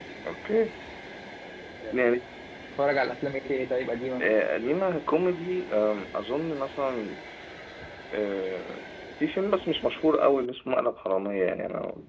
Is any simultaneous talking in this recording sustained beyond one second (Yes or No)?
No